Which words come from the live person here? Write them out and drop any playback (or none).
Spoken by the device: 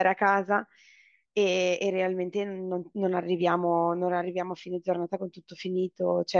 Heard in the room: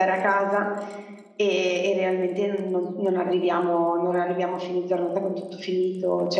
none